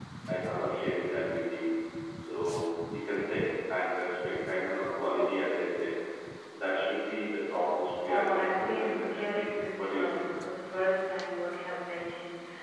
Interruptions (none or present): present